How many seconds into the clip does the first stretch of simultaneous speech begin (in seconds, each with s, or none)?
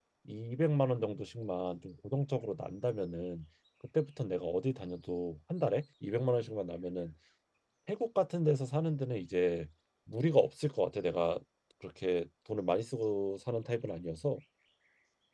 none